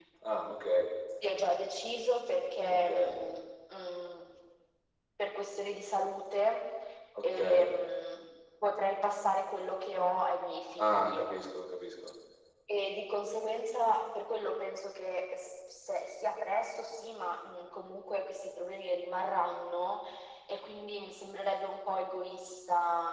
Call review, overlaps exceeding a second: none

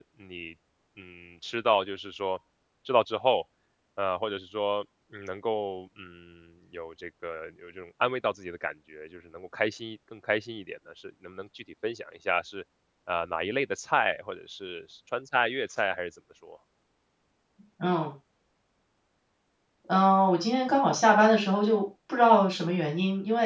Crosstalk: none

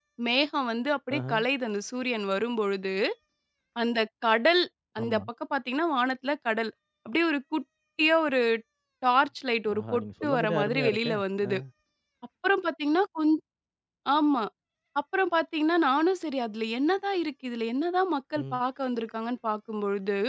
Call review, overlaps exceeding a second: present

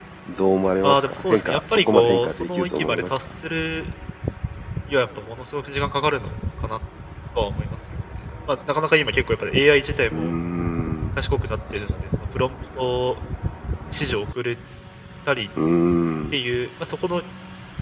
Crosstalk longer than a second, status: present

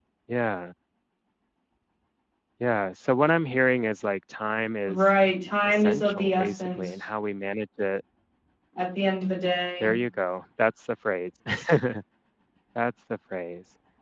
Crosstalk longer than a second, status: present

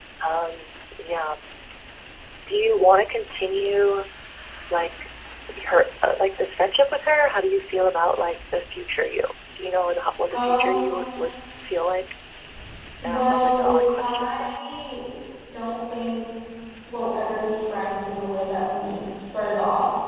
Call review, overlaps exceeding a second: present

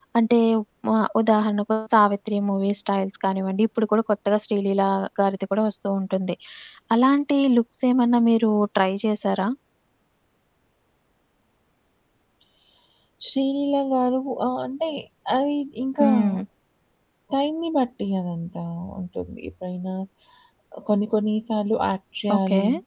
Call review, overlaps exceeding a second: none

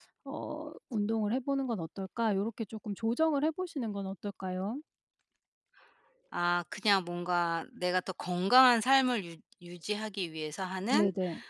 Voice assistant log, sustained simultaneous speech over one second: none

